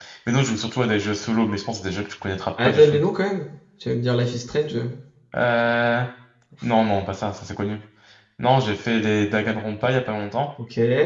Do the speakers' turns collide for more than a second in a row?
No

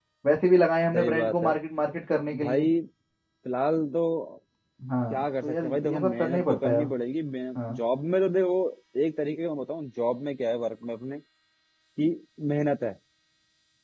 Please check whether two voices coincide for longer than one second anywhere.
Yes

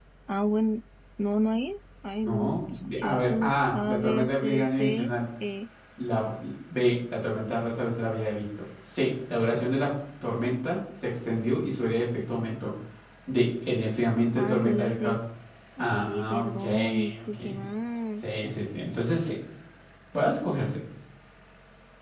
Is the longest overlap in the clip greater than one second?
Yes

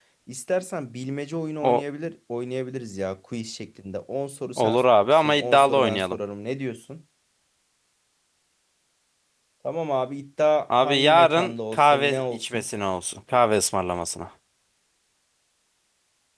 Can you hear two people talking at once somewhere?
Yes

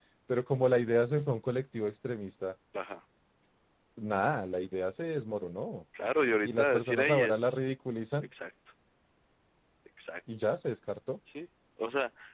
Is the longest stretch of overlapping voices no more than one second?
No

